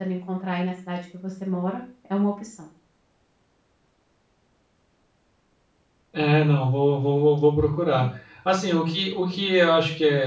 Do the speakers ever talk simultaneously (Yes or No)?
No